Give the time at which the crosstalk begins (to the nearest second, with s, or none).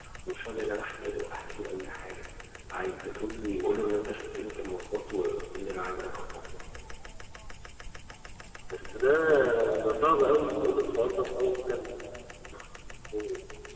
none